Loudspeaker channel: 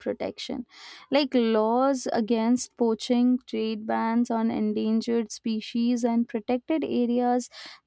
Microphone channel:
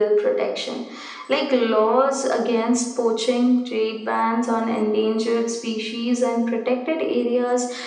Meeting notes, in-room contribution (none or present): none